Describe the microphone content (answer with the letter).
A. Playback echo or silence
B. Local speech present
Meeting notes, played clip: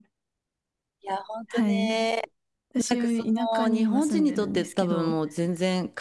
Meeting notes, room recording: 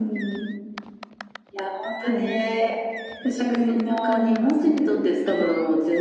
A